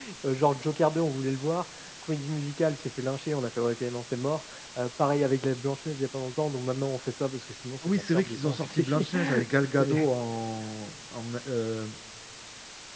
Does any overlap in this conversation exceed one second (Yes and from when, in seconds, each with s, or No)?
Yes, from 7.8 s